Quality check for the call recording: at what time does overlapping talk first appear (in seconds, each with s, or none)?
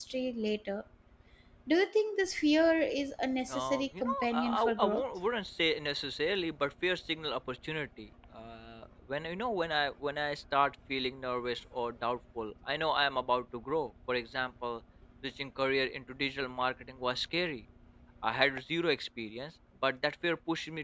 3.5 s